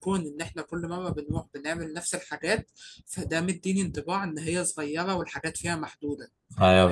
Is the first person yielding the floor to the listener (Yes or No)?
Yes